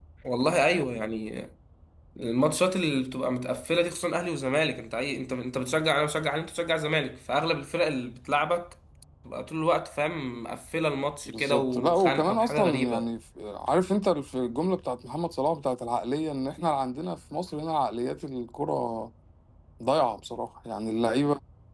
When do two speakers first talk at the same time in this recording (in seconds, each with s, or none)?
11.3 s